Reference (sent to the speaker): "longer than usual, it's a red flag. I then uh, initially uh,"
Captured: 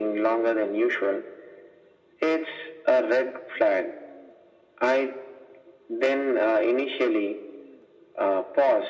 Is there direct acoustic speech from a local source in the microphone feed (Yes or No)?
No